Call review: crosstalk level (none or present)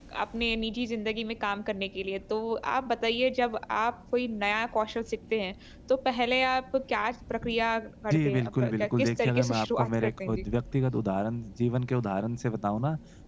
present